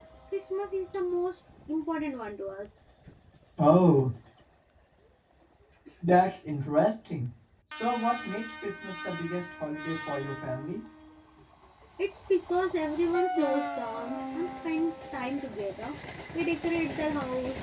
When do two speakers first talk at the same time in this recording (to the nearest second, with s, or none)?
none